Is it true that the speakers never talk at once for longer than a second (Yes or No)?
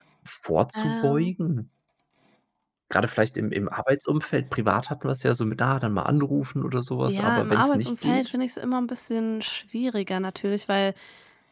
No